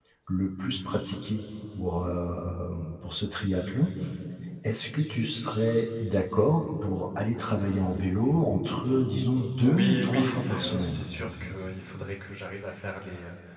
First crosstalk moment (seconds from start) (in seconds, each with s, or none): 9.3 s